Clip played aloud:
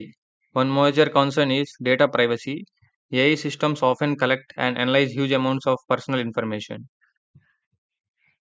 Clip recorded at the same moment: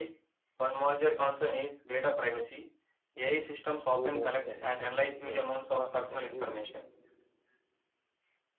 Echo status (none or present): present